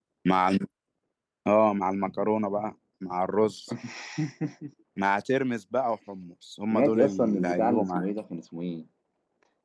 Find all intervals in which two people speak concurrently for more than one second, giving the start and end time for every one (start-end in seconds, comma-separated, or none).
6.7-8.0